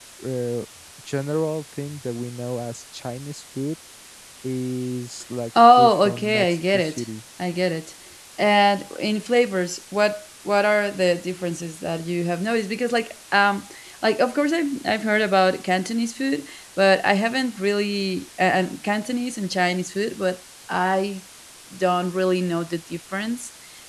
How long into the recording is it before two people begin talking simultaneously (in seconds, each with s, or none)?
5.5 s